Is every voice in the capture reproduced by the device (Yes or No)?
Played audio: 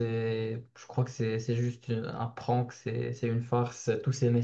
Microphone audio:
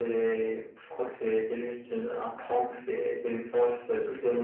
Yes